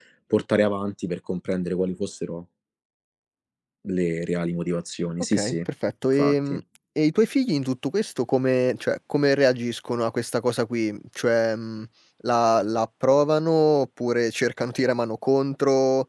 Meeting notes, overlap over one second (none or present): none